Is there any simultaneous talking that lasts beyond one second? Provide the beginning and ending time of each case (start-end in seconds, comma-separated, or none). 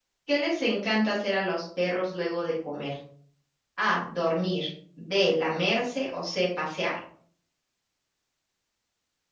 none